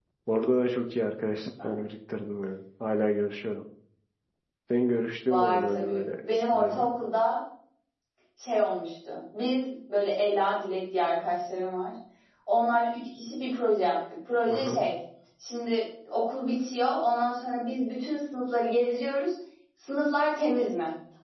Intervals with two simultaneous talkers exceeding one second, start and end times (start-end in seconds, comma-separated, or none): 5.3-6.9